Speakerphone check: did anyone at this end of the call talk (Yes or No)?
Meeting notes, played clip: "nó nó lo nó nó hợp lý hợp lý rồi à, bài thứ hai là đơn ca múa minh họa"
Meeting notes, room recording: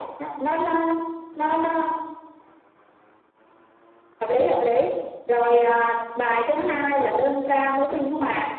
No